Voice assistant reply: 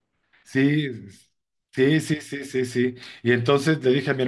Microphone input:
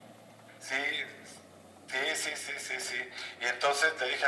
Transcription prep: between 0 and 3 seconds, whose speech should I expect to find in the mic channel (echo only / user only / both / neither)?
echo only